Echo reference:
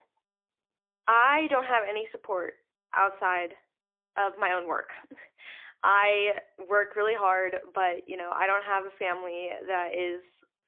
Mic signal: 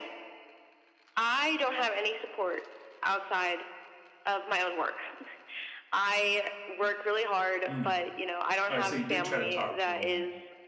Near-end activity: present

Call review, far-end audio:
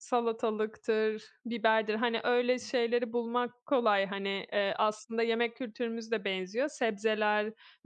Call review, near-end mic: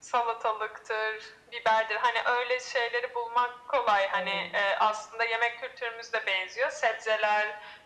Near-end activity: present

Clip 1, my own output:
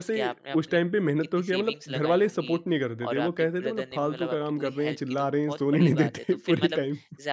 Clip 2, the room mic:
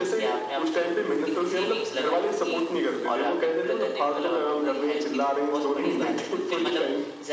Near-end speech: none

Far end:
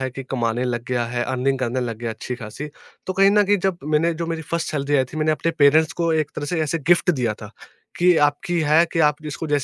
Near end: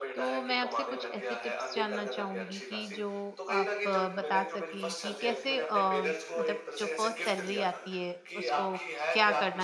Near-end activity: present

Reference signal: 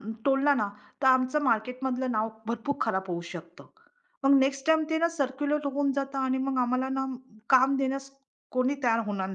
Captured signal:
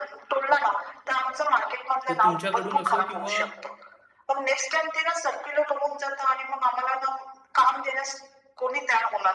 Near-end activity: present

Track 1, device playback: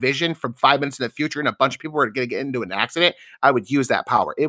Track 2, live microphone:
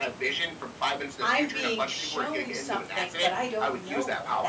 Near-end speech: present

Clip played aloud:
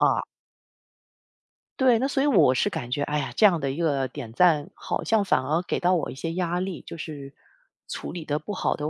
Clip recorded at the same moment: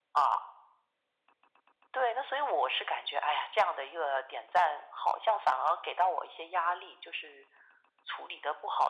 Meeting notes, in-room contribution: none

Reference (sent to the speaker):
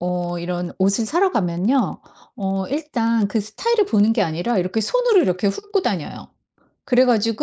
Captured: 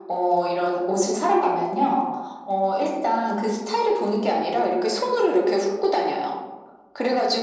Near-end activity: none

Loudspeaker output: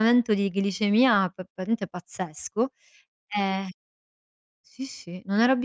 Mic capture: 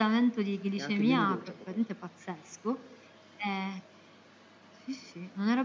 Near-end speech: present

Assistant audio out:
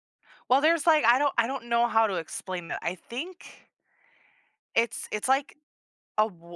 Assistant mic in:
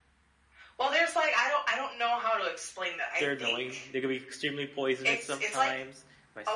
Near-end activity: present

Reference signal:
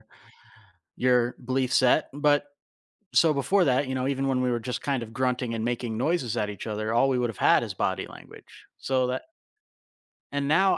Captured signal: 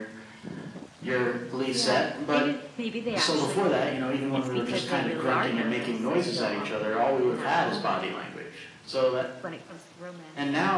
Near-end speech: present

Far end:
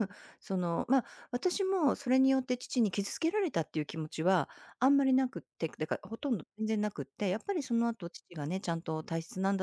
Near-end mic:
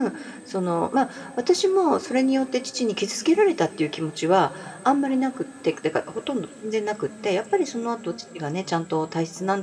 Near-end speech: none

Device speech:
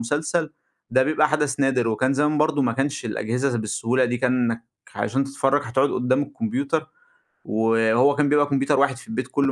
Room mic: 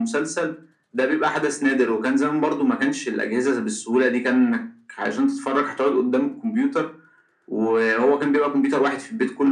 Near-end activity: none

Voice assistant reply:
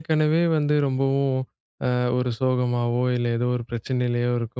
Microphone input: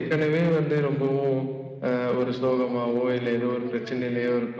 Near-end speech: present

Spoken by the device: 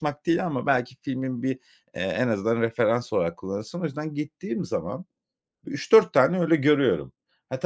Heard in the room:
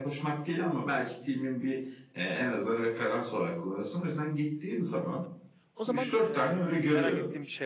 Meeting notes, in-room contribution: present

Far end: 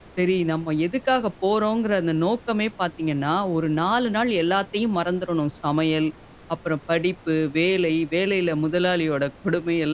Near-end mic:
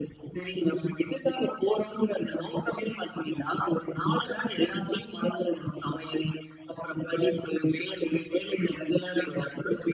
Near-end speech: none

